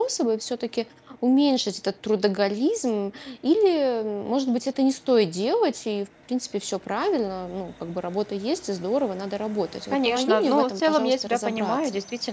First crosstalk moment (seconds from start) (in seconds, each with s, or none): 9.9 s